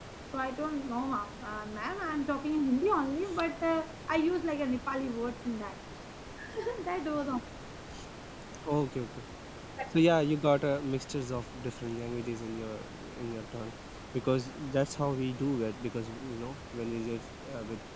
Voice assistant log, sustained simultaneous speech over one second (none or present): none